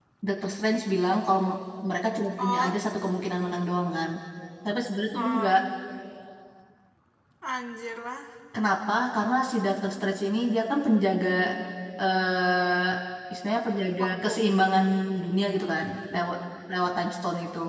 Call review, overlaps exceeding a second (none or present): none